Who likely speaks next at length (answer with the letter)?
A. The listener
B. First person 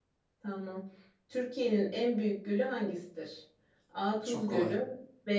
B